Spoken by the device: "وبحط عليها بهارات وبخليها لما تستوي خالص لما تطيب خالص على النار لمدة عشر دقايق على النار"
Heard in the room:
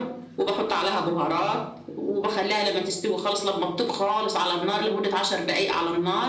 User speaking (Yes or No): No